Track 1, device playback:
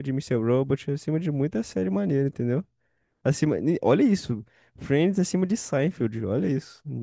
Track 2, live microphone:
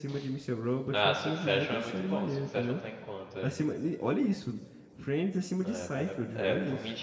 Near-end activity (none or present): present